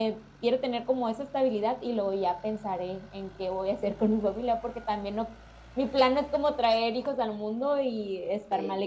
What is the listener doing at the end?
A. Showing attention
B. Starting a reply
B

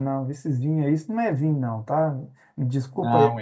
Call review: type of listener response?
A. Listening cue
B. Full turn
A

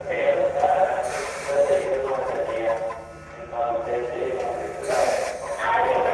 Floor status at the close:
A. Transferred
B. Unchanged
A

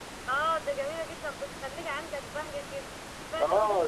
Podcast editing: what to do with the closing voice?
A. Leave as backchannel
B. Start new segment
B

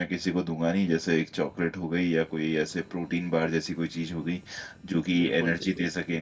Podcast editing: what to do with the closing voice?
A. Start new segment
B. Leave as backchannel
B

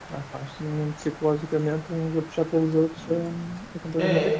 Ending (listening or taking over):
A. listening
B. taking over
B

